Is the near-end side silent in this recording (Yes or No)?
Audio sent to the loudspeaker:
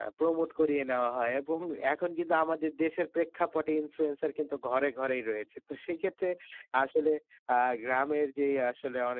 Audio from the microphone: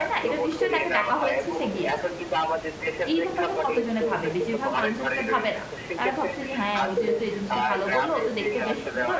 No